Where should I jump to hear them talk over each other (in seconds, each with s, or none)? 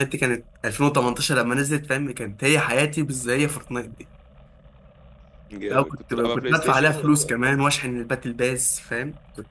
5.7 s